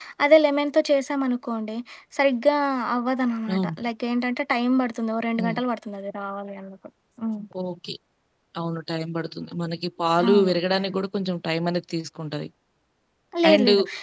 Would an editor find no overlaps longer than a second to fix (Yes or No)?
Yes